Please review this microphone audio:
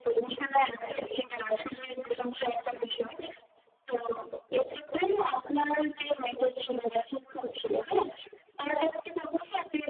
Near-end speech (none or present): none